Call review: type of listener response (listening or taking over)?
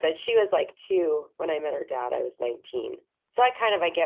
listening